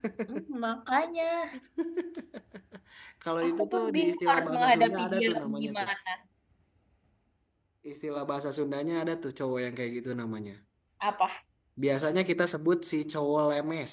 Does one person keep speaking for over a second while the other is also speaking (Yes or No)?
Yes